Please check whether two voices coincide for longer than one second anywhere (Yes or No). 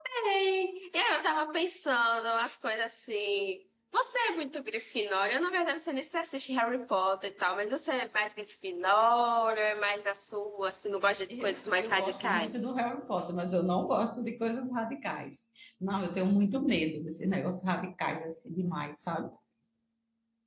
Yes